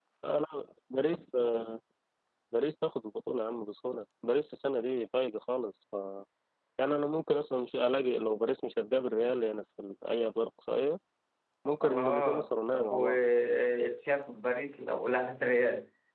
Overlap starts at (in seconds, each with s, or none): 11.8 s